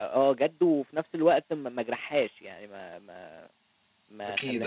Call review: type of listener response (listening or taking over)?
listening